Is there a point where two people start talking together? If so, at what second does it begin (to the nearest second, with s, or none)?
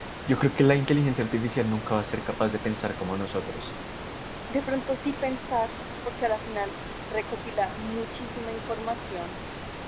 none